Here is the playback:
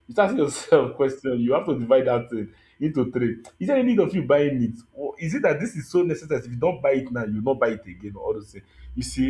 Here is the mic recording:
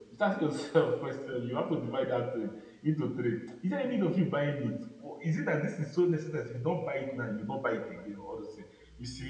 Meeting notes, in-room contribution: none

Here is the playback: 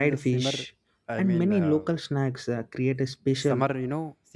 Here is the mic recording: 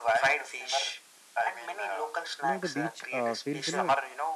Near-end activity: present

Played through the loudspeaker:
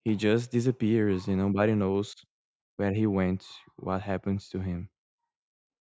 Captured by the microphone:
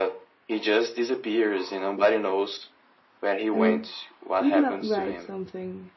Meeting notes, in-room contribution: present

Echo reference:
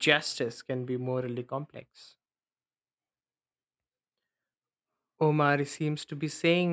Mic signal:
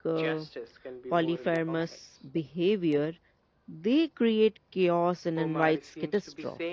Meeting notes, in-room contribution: present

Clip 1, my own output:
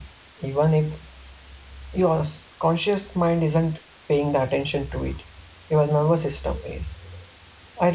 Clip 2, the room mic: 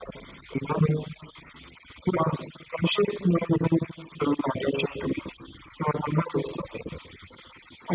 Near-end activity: none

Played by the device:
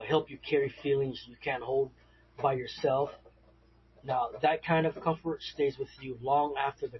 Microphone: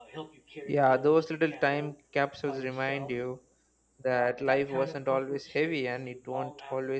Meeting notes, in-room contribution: present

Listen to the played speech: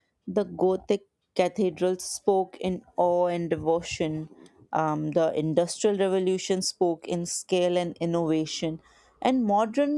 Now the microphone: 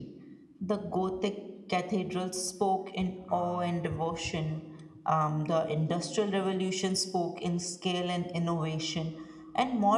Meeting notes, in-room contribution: present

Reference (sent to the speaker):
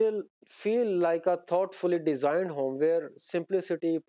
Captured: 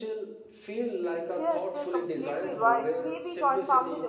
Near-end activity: present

